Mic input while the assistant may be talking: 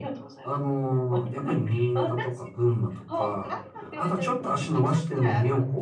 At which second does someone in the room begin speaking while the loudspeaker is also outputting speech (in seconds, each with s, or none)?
none